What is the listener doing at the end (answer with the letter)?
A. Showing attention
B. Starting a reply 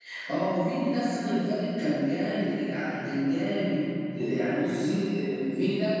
A